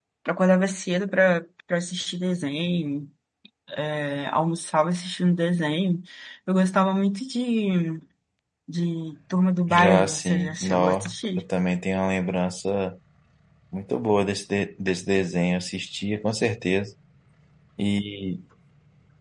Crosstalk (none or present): present